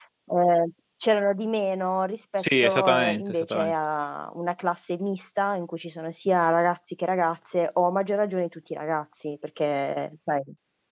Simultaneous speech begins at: 2.4 s

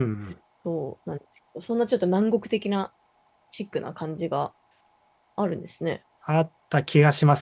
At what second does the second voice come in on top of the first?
none

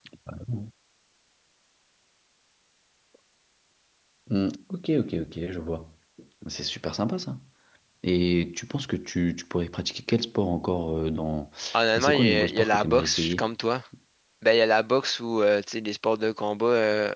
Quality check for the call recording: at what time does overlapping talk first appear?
11.7 s

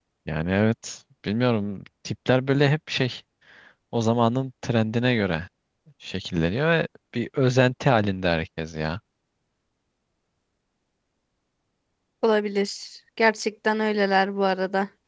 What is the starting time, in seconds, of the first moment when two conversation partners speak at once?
none

